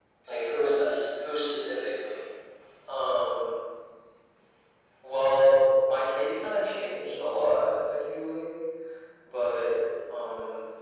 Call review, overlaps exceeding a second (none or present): none